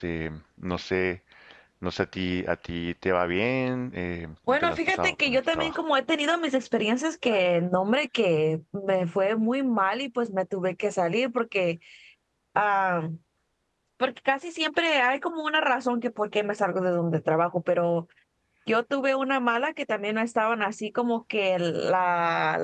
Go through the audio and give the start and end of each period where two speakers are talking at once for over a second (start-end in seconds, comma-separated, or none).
4.5-5.8